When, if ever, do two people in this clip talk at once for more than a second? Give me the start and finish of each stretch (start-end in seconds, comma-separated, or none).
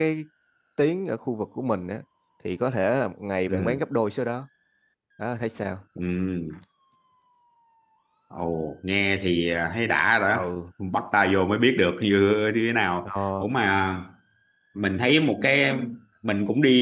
none